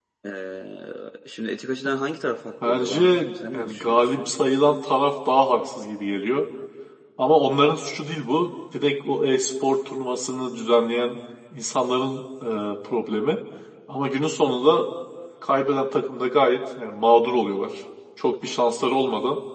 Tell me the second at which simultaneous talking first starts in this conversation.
2.6 s

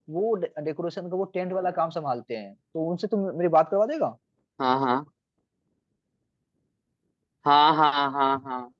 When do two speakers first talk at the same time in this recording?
none

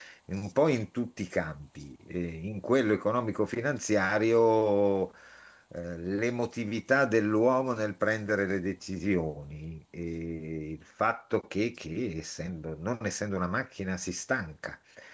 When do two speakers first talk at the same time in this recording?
none

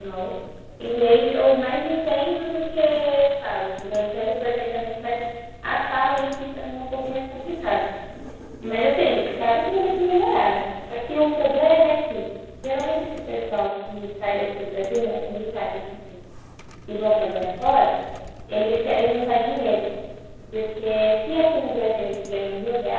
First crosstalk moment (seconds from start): none

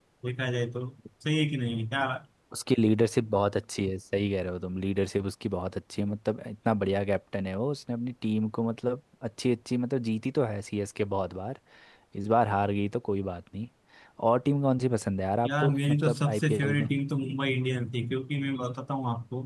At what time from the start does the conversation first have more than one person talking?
15.4 s

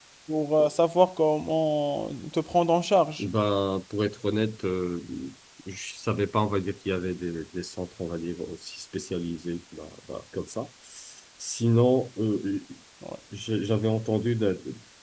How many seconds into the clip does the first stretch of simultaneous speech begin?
none

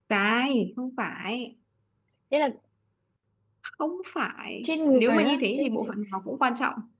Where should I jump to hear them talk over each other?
4.6 s

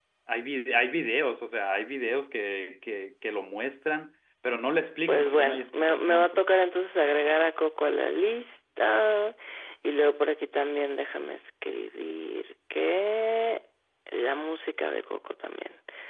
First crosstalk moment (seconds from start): 5.1 s

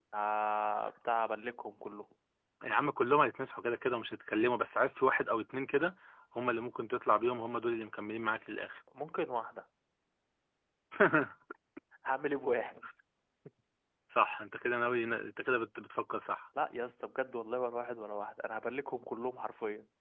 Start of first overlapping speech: none

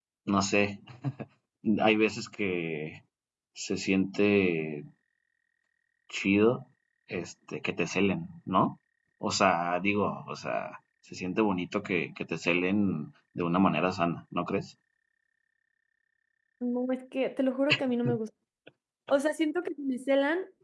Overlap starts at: none

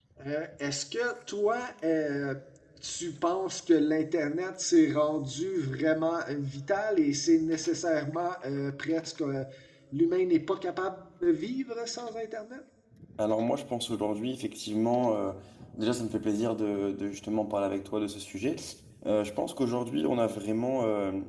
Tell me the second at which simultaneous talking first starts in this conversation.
none

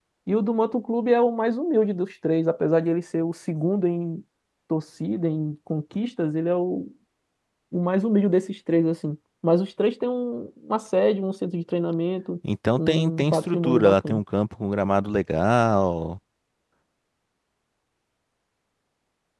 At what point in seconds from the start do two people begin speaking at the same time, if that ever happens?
12.8 s

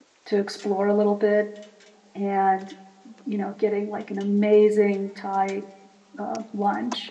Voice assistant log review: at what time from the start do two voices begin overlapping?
none

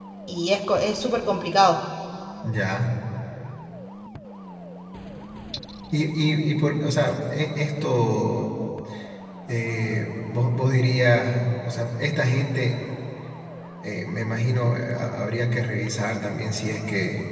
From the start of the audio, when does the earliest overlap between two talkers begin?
none

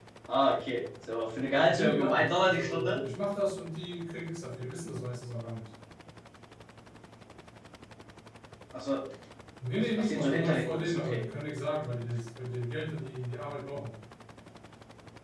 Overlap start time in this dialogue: 1.7 s

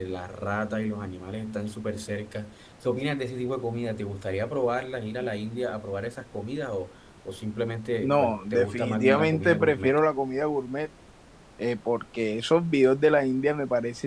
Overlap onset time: 8.0 s

